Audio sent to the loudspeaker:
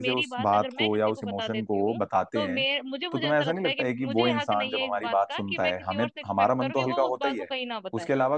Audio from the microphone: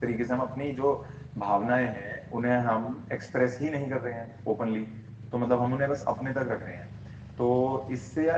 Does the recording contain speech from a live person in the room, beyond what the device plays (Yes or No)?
Yes